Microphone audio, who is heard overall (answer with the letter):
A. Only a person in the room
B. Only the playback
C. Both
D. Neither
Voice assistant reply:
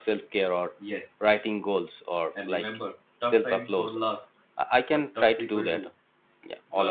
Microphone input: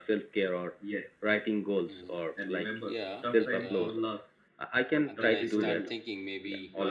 C